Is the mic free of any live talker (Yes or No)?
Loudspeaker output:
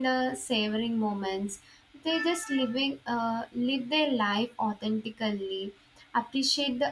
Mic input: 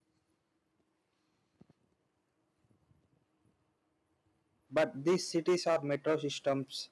No